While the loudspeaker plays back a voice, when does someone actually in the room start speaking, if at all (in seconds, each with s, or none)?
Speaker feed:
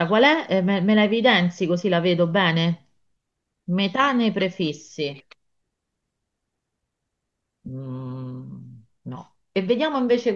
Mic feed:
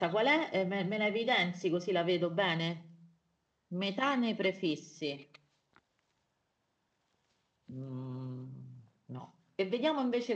none